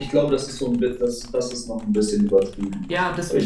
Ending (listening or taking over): taking over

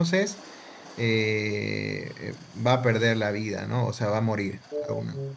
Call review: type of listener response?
listening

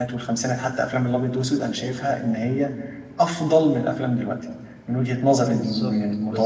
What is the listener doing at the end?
taking over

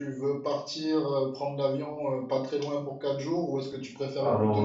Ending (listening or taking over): listening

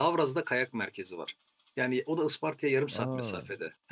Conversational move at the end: listening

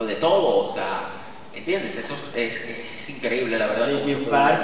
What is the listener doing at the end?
taking over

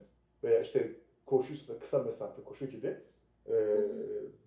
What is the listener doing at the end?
listening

